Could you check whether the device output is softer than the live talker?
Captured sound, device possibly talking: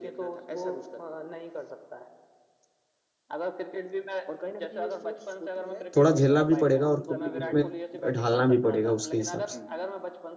Yes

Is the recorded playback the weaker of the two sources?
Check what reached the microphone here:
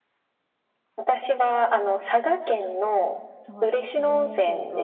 No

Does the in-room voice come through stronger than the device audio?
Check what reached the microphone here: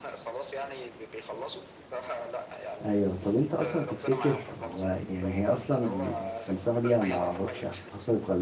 Yes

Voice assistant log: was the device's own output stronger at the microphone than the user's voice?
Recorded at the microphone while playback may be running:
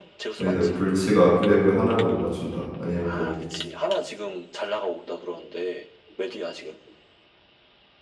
No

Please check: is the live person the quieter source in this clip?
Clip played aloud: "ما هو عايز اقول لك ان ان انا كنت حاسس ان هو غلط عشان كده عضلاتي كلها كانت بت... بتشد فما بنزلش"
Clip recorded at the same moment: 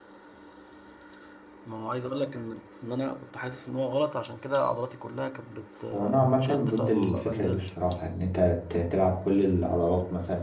No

